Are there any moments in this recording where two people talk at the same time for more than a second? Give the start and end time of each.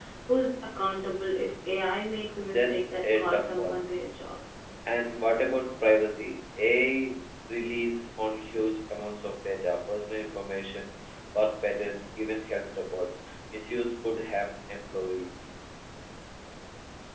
2.5-3.8

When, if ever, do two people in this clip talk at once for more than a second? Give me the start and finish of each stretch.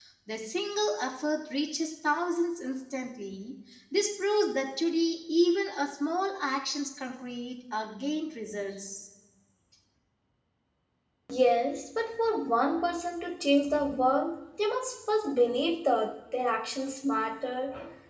none

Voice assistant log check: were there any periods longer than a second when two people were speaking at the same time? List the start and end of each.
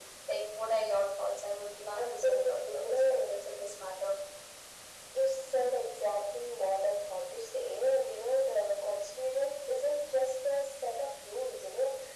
1.9-3.2

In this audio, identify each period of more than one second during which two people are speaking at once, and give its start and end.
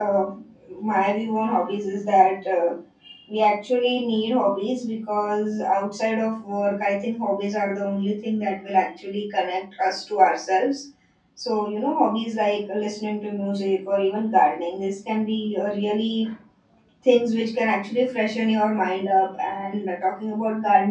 none

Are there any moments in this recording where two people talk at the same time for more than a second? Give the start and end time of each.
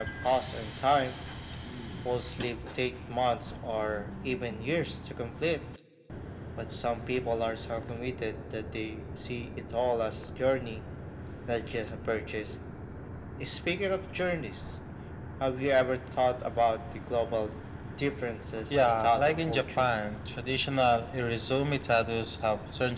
18.7-19.9

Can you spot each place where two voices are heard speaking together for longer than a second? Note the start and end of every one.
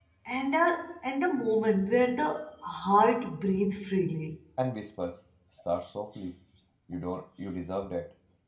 none

